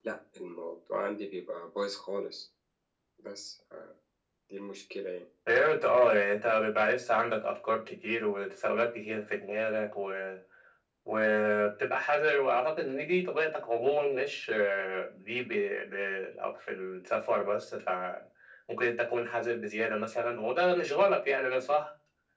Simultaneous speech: No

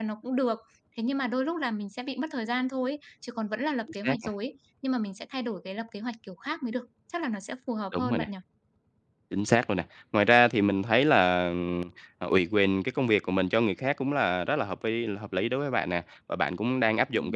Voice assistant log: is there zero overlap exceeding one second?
Yes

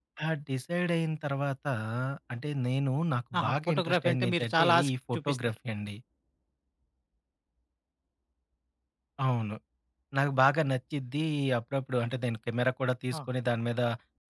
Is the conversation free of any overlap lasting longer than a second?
No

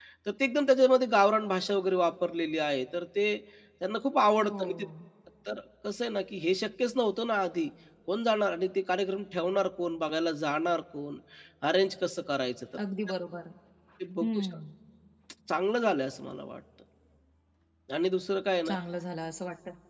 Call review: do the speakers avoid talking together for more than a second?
Yes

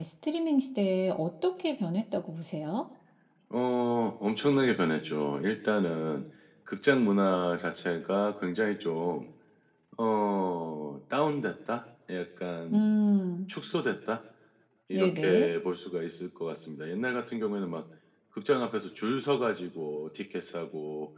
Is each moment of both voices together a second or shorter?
Yes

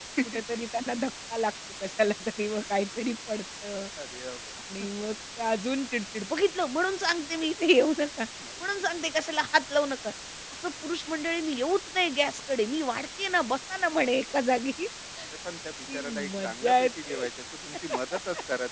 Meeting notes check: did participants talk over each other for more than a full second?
Yes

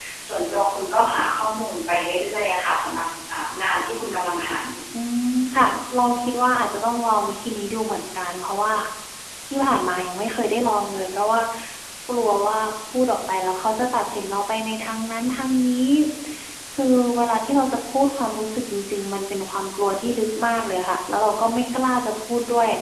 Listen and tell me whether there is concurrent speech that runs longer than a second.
No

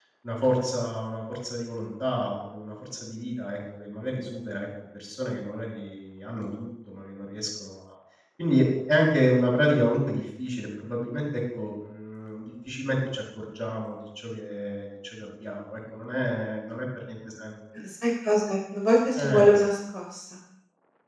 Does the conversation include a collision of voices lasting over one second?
No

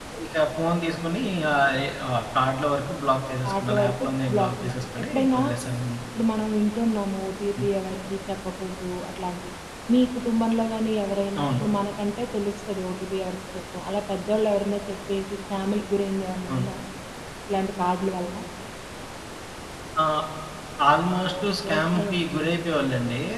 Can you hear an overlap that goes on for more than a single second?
Yes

